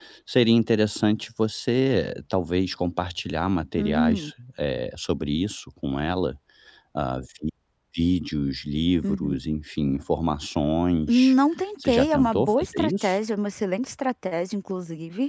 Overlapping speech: Yes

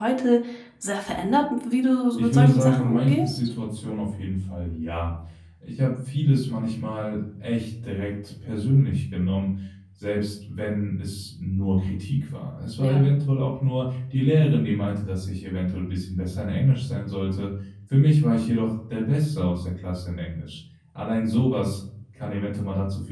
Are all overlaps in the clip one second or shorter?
No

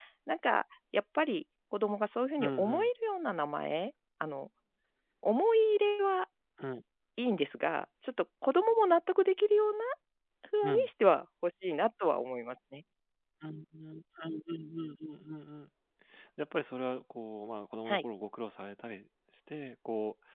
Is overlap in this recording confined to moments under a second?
Yes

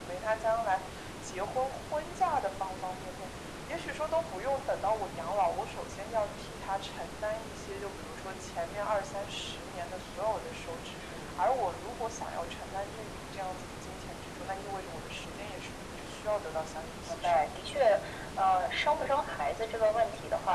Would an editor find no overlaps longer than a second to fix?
Yes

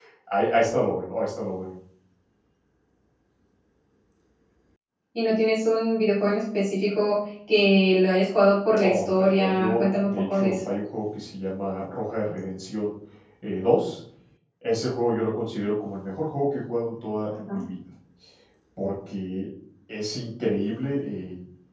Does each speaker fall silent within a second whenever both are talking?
No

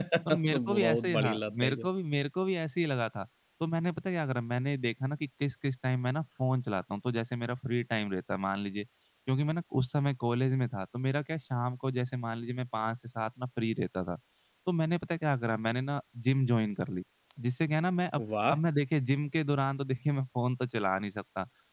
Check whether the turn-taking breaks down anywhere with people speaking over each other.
Yes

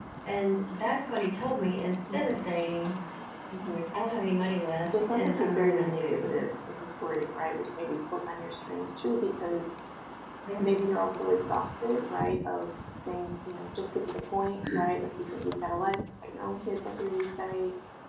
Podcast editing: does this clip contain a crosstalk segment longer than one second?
Yes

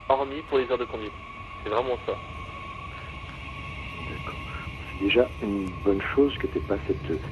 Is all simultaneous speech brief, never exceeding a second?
Yes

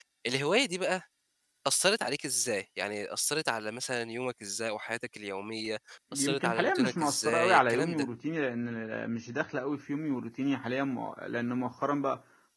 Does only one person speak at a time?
No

